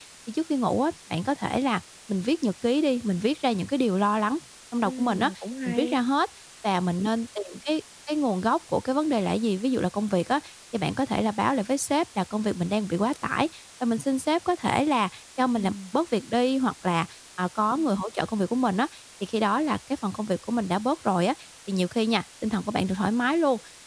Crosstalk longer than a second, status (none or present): none